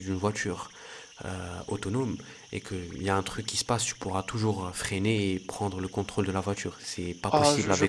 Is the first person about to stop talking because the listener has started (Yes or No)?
Yes